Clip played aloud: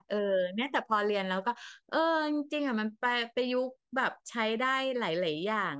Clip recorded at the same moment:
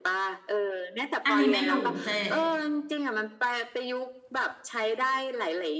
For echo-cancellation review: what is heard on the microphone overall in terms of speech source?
both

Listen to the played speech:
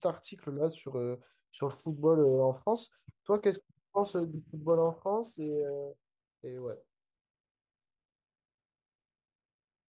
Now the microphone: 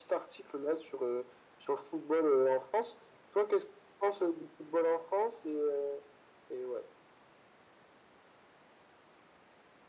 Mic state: echo only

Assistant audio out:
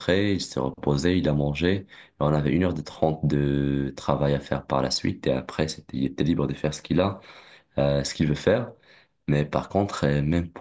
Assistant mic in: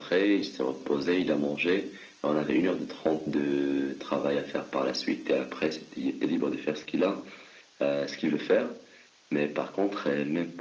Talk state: echo only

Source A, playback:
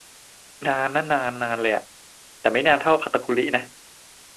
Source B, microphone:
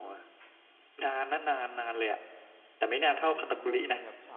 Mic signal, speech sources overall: both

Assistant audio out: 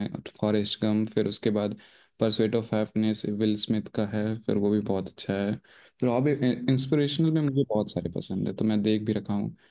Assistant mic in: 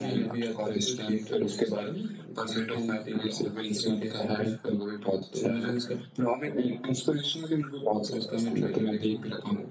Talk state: both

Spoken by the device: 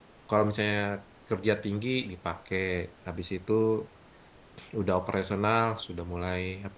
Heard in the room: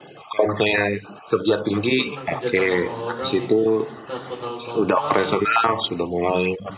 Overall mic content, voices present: both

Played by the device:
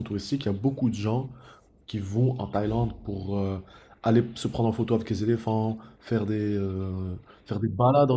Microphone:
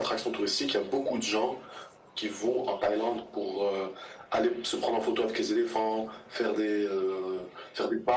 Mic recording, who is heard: echo only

